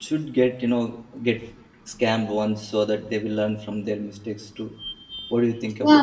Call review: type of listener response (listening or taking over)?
taking over